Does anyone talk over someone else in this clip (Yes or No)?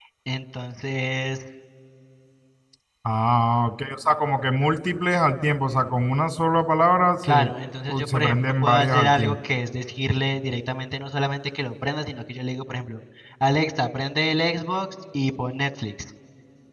Yes